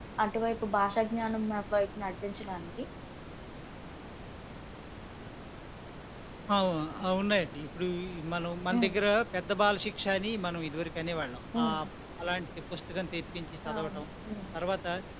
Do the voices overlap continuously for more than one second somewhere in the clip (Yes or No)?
No